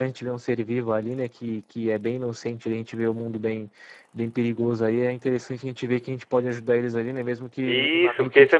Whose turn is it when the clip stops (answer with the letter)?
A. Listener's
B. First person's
A